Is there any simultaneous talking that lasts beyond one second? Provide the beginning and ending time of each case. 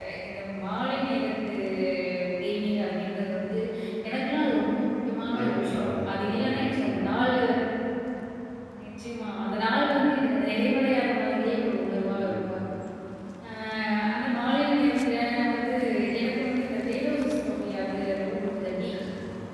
5.4-7.2

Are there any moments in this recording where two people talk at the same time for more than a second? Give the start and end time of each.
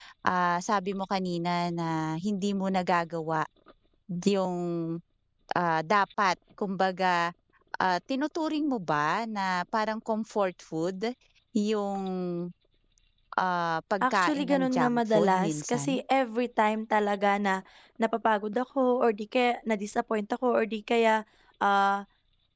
14.0-15.9

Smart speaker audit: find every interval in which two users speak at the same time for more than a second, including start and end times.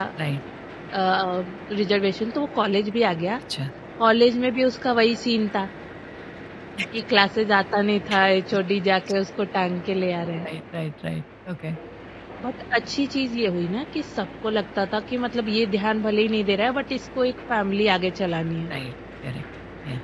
none

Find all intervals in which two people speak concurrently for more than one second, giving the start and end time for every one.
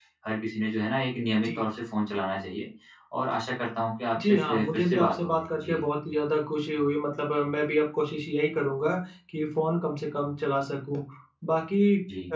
4.2-5.8

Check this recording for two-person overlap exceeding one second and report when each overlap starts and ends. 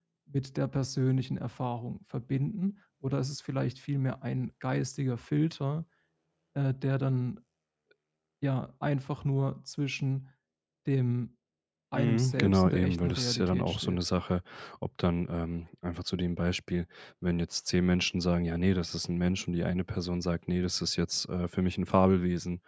11.9-14.0

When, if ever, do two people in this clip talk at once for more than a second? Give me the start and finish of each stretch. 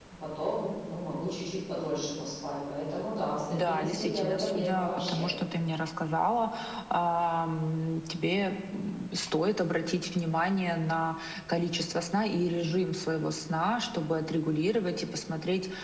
3.5-5.3

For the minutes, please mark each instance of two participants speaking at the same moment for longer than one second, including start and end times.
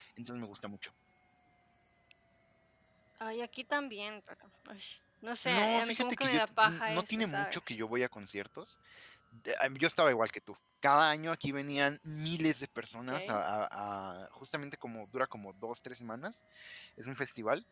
5.4-7.6

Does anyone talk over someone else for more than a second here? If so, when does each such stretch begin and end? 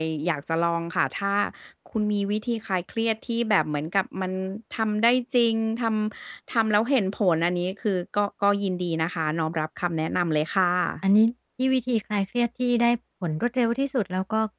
none

